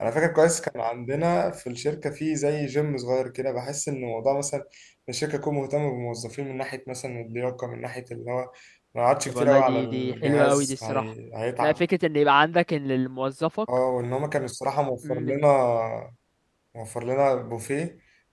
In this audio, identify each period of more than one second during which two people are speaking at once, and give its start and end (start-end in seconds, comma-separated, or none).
9.3-11.1